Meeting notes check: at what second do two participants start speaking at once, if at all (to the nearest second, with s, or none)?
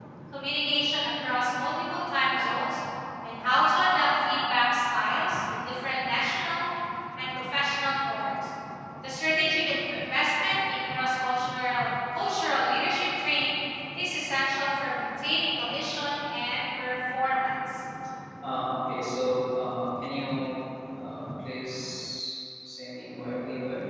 none